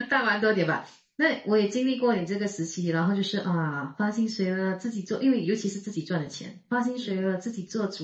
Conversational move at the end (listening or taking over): listening